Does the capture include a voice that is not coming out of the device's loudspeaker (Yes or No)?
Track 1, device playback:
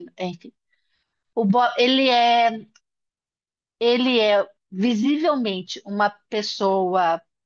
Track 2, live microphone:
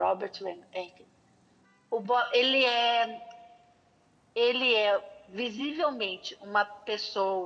No